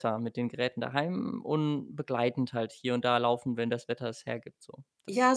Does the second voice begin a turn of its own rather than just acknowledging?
Yes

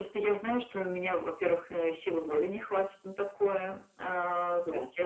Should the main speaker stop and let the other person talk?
No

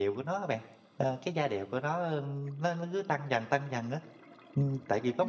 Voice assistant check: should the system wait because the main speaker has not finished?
No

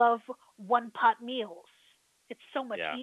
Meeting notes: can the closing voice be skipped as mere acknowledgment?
Yes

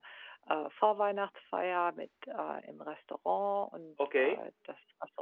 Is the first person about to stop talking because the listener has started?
No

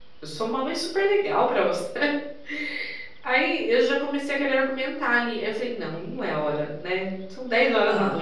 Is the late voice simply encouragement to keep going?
Yes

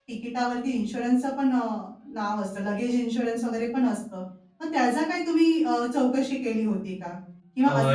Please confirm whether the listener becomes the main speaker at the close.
No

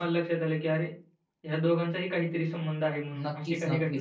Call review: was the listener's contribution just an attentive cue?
No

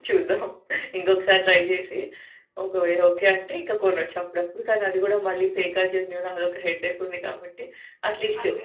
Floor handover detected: No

